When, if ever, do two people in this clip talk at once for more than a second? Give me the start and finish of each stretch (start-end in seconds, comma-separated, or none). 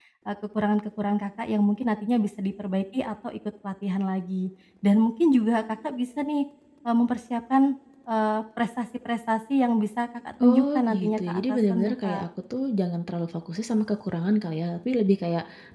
10.4-12.2